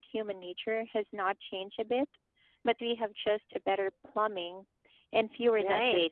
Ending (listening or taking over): taking over